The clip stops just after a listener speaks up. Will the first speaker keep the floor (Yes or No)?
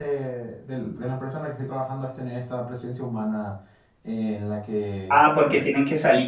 No